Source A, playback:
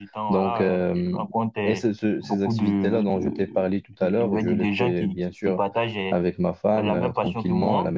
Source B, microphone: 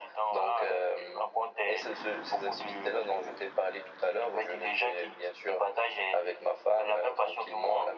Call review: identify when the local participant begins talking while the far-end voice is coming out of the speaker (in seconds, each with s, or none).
none